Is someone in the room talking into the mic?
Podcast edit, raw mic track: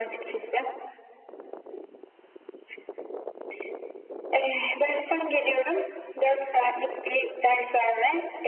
No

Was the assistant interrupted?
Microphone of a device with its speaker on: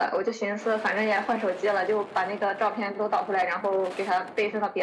No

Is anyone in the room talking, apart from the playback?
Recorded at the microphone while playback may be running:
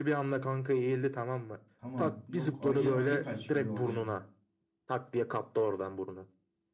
Yes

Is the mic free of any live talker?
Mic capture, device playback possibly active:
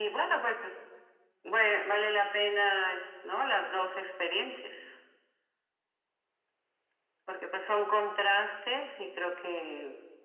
Yes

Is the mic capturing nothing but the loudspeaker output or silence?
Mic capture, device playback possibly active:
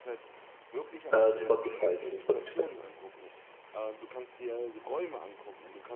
No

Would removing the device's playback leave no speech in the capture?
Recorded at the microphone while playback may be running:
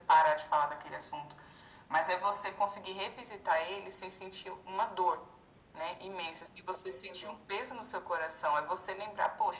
Yes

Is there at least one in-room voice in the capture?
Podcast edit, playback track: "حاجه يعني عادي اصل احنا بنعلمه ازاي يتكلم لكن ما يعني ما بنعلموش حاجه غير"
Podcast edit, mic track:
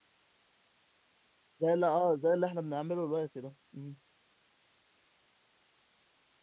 Yes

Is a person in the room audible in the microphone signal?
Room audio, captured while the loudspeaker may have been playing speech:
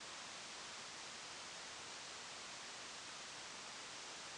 No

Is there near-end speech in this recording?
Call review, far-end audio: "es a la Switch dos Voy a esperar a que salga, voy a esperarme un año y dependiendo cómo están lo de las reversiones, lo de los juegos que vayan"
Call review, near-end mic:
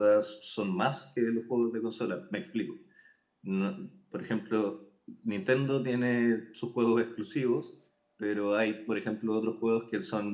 Yes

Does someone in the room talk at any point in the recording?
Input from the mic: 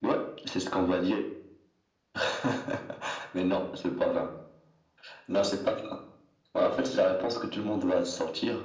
No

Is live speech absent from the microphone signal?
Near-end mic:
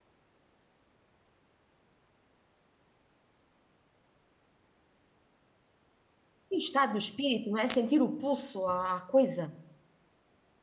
No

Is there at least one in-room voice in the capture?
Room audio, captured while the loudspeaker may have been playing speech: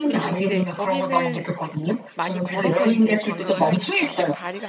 Yes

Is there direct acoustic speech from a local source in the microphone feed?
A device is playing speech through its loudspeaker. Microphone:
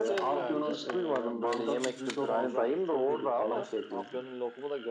Yes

